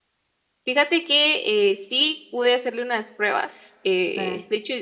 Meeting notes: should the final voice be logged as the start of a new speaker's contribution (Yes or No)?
No